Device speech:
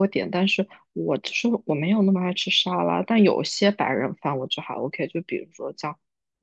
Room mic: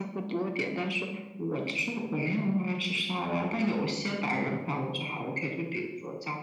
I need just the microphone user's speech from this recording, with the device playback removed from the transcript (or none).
none